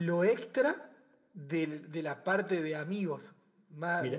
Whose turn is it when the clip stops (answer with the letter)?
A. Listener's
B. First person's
B